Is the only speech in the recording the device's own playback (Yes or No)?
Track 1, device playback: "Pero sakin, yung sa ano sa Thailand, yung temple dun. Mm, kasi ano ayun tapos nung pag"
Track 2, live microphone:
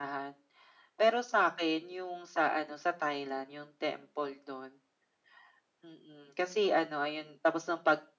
Yes